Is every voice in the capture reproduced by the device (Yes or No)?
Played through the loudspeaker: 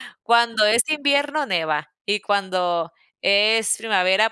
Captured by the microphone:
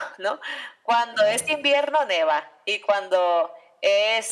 No